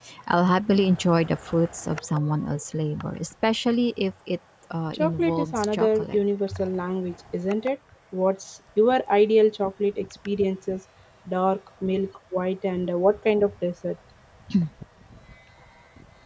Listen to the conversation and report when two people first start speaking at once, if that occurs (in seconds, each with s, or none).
4.9 s